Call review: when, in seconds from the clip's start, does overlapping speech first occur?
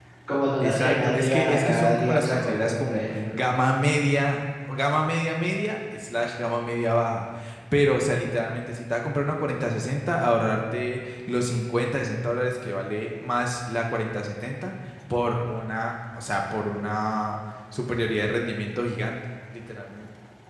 0.6 s

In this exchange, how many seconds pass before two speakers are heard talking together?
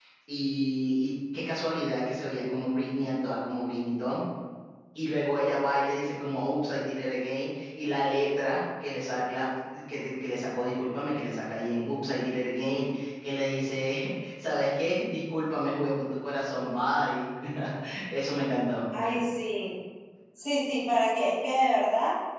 none

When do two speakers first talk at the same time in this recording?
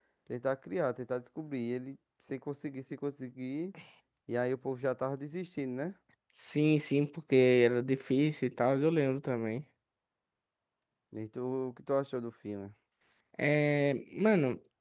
none

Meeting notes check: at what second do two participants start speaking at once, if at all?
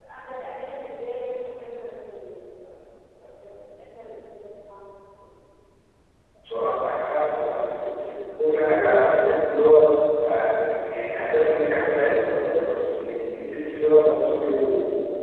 none

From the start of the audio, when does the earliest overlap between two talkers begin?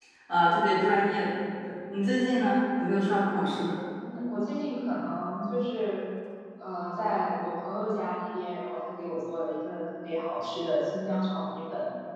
none

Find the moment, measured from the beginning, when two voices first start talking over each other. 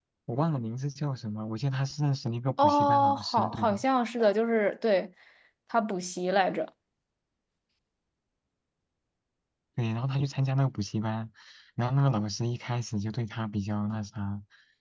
2.6 s

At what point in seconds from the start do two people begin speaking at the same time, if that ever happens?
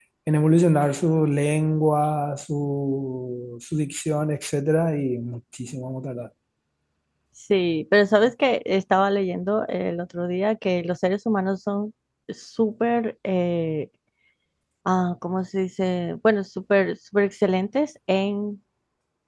none

